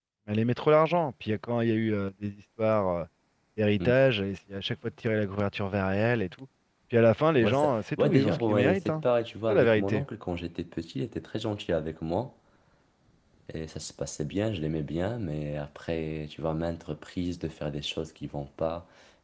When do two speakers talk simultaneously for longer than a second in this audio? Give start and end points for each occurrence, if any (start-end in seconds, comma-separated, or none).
7.4-9.0